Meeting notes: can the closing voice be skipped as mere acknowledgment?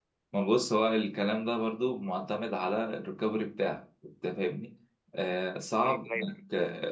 Yes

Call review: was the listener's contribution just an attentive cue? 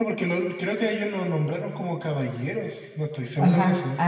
No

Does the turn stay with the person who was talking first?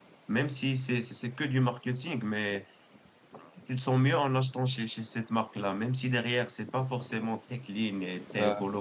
Yes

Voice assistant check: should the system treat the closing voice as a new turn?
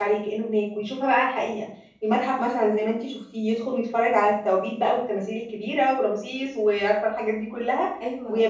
No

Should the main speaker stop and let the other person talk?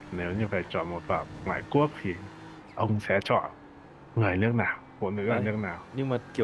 Yes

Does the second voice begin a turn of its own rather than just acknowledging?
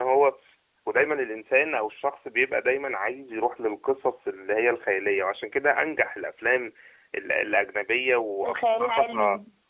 No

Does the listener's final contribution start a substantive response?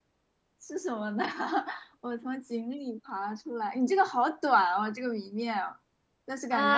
Yes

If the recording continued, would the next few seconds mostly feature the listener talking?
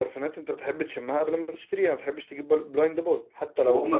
Yes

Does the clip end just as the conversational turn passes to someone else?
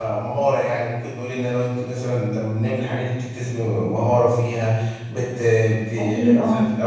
No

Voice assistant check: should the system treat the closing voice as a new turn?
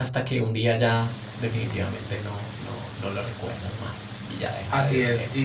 Yes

